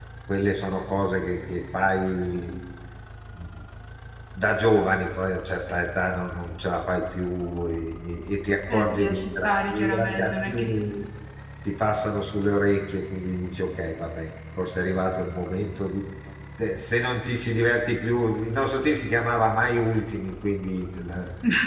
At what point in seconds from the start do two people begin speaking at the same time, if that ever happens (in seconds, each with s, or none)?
8.7 s